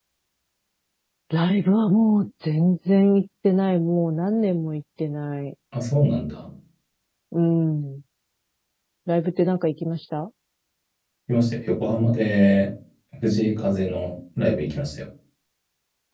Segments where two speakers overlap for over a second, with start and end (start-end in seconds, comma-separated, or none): none